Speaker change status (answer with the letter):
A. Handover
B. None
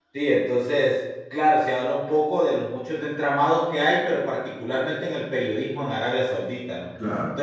B